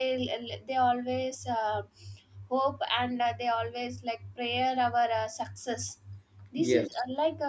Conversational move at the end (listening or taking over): listening